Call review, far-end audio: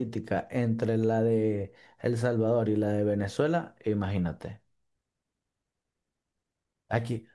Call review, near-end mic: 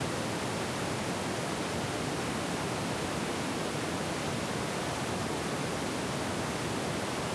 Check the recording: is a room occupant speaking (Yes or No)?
No